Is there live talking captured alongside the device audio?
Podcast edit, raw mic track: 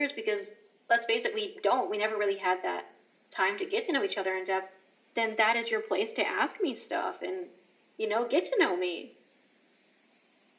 No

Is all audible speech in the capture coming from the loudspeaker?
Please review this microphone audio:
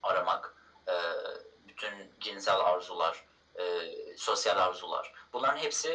Yes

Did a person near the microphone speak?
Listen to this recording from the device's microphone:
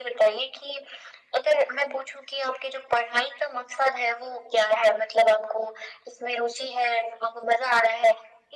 No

